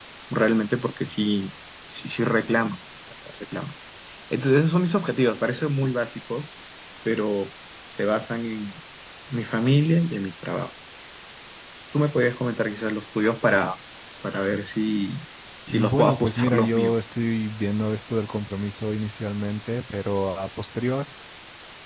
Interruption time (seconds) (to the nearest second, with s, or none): 16 s